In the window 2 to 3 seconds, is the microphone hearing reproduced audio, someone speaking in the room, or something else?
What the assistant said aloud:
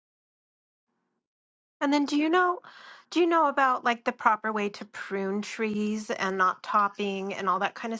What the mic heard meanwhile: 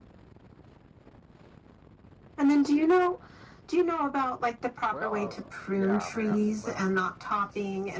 echo only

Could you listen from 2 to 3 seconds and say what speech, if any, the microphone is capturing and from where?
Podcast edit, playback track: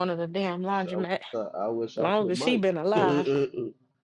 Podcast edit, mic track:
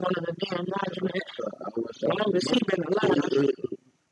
echo only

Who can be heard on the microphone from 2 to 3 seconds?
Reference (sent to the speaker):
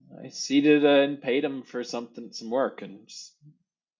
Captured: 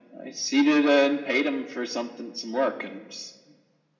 echo only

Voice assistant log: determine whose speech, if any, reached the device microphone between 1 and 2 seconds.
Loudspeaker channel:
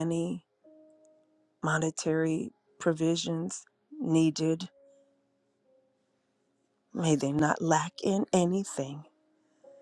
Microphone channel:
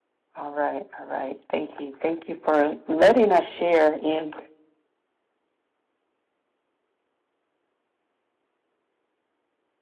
user only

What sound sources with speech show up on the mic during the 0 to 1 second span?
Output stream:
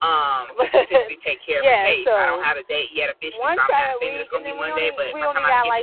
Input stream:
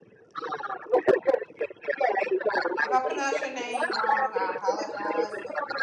echo only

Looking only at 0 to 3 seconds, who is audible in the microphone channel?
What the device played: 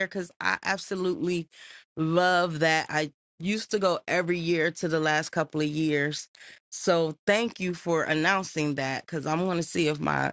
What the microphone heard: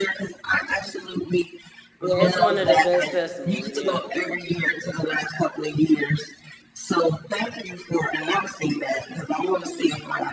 both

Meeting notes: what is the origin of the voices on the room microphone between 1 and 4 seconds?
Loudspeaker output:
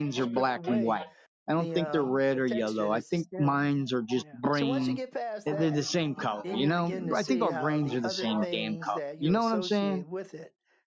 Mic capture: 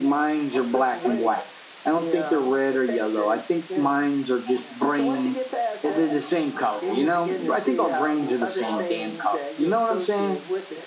echo only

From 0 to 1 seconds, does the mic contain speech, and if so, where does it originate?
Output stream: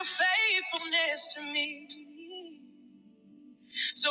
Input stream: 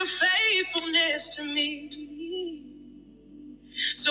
echo only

